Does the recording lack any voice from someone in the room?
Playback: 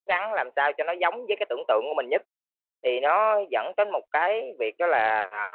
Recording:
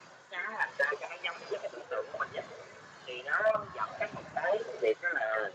Yes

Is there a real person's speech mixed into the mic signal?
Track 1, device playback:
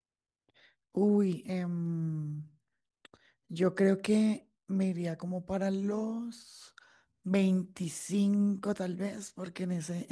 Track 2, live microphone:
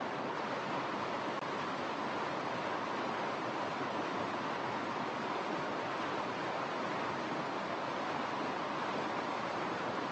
No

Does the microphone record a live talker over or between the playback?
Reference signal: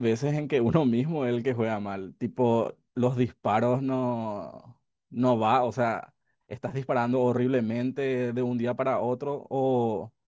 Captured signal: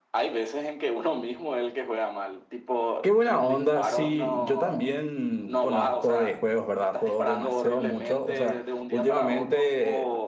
Yes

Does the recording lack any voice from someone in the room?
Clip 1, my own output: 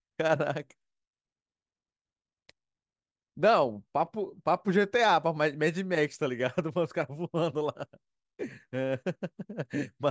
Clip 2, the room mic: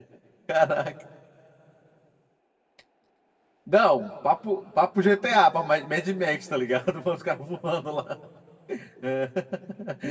Yes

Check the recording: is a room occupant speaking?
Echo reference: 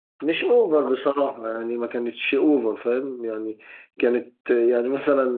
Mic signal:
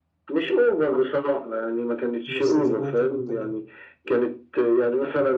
Yes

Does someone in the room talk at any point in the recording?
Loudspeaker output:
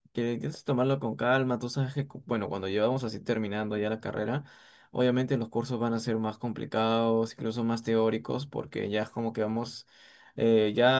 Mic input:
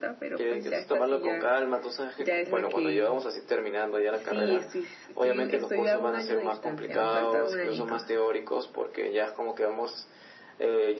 Yes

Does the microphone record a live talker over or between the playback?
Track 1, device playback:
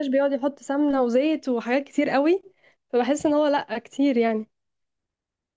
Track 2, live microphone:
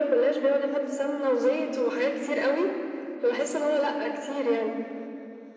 No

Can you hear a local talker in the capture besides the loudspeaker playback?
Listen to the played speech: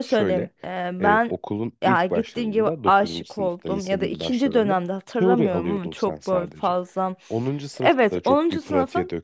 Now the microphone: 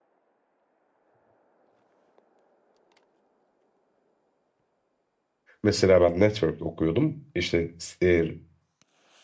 Yes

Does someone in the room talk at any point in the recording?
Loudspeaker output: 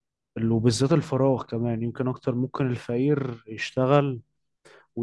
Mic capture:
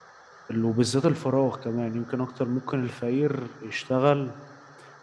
No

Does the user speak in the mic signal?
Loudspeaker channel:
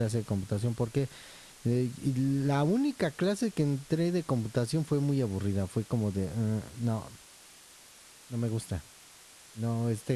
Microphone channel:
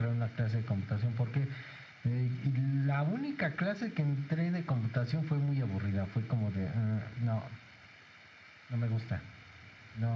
No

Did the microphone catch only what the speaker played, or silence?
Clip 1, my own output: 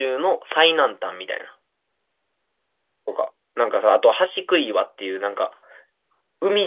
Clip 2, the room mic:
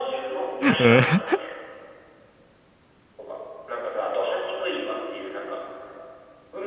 No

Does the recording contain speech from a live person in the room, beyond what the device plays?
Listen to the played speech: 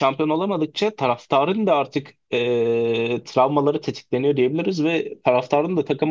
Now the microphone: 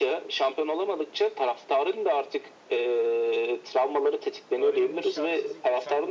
Yes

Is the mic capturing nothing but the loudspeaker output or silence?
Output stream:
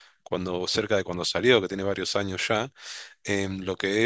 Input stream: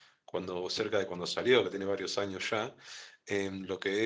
Yes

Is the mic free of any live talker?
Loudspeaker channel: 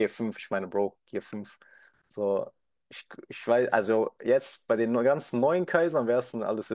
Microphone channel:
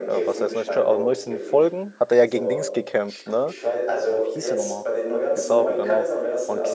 No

